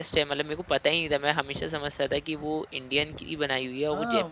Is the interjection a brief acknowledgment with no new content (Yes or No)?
No